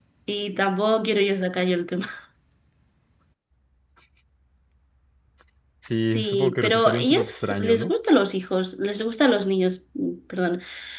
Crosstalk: present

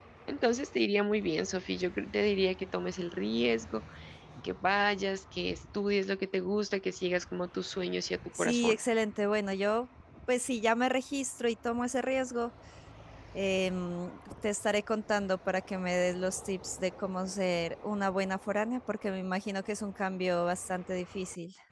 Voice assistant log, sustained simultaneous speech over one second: none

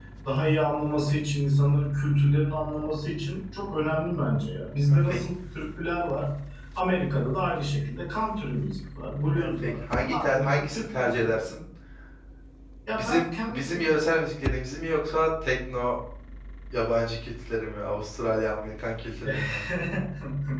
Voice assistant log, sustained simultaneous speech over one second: present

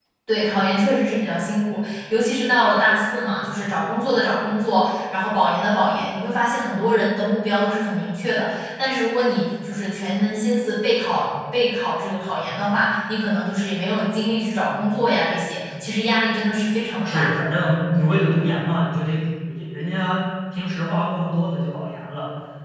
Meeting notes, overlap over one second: none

